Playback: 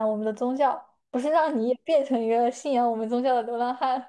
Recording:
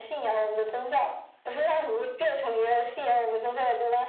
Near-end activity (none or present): none